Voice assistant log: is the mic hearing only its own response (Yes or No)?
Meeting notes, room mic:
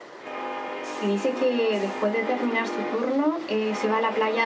No